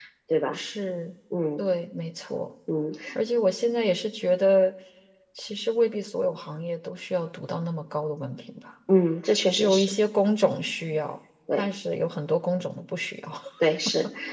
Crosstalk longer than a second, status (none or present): none